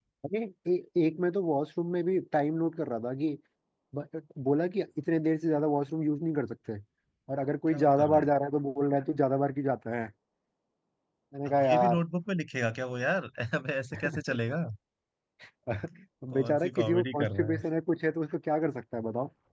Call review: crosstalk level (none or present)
present